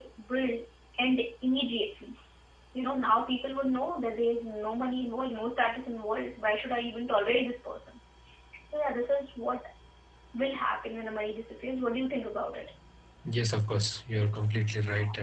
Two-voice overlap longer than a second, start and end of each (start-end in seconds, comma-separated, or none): none